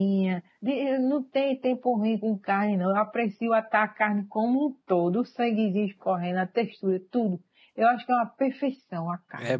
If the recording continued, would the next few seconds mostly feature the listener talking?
Yes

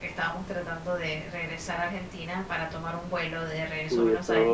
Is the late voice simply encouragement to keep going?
No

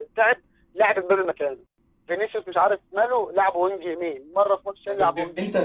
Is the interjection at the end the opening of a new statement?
Yes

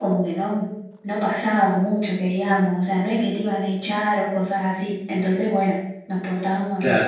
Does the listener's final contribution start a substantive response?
Yes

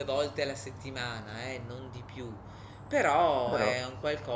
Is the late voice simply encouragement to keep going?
Yes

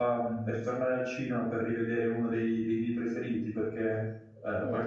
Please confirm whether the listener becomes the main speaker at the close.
No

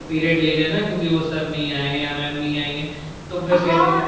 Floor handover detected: Yes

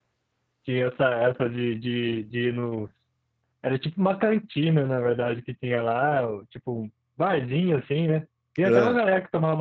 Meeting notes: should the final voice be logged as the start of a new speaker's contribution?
No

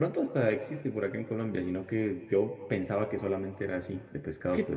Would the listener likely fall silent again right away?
No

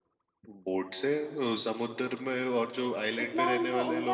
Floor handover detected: Yes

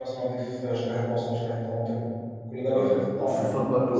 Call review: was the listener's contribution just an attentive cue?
No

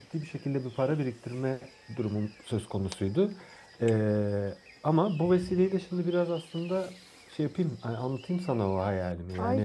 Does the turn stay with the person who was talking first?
No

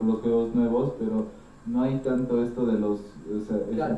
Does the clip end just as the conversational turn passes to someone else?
Yes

